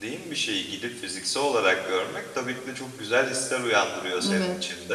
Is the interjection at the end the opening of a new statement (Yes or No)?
No